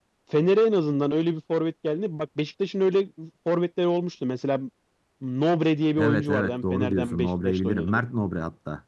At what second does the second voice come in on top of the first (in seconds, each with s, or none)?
6.0 s